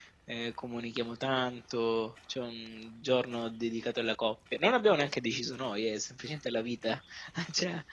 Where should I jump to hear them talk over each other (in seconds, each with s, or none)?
none